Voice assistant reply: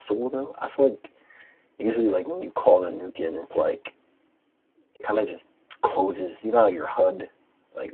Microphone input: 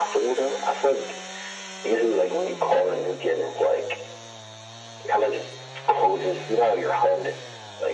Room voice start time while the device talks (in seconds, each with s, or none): none